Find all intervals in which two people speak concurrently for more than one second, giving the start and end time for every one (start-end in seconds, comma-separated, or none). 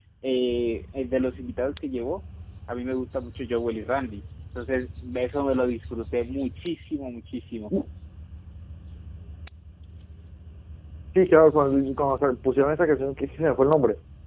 none